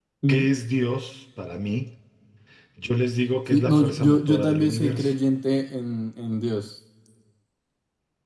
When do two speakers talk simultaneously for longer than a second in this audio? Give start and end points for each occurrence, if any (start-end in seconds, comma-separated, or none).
3.5-5.1